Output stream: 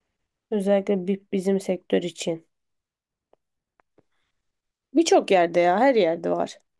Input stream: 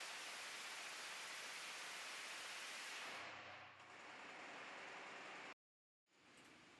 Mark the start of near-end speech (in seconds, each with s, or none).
none